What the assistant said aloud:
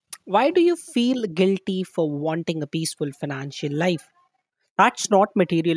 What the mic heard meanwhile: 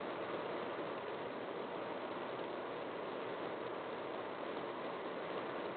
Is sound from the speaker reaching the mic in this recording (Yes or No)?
No